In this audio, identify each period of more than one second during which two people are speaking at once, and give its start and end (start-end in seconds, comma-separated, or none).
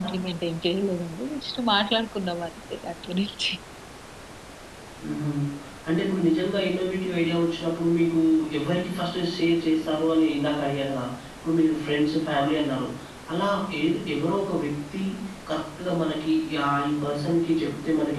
none